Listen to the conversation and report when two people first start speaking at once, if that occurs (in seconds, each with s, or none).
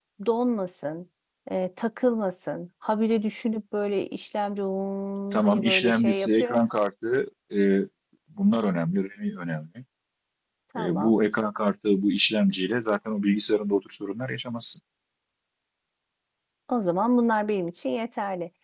5.3 s